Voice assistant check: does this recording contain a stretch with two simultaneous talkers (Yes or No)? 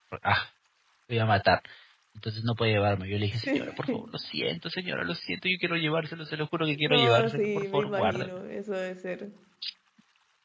Yes